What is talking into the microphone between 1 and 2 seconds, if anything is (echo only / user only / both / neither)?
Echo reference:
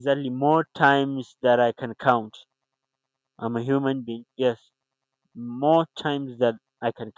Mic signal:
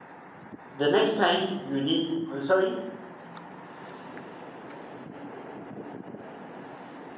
user only